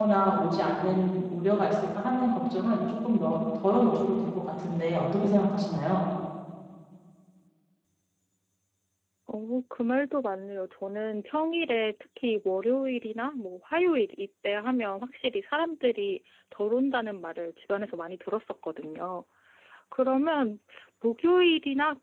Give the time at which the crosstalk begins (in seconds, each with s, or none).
none